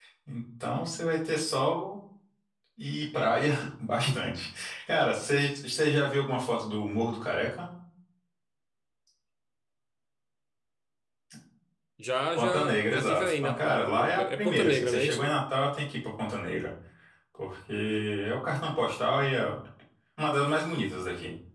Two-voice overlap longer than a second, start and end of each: 12.4-15.3

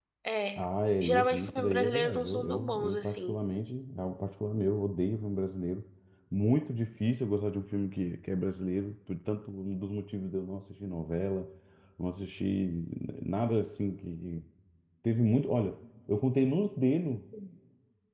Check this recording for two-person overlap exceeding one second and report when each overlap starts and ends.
1.0-3.4

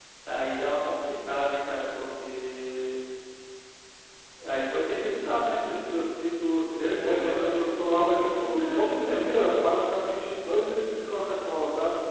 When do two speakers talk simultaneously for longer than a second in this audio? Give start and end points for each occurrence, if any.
6.9-9.3

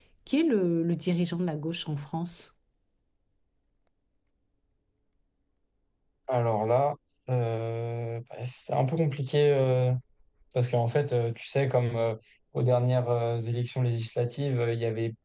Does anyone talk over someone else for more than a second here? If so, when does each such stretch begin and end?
none

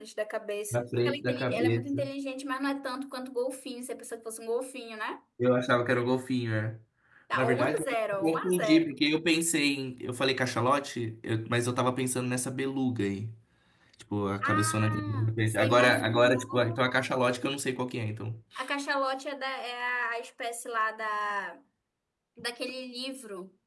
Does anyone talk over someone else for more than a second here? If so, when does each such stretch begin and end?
0.7-2.1, 7.3-8.9, 14.4-16.8

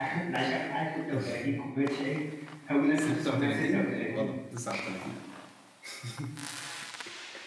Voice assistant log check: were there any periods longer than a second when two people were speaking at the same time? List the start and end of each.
3.0-4.3

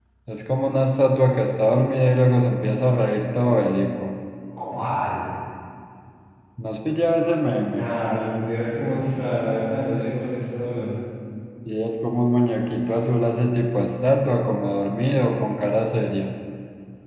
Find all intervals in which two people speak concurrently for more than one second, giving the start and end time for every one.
none

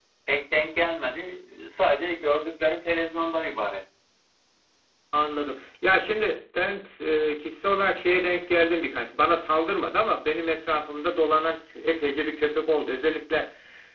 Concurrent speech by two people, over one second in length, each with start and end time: none

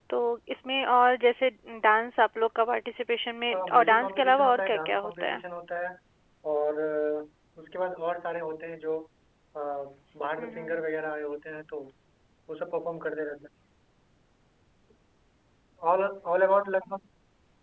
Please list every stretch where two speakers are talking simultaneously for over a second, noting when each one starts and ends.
3.5-5.4

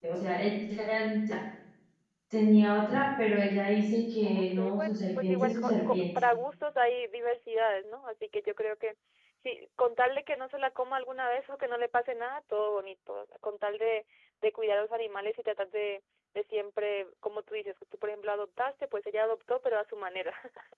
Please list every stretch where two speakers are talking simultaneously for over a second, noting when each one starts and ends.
4.2-6.0

